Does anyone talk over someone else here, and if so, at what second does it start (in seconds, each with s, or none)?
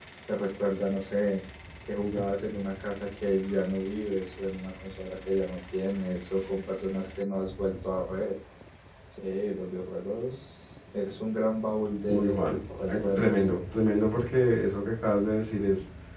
12.1 s